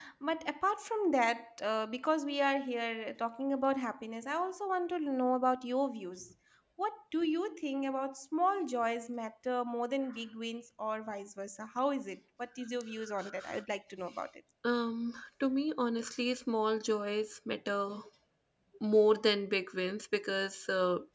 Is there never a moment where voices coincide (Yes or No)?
Yes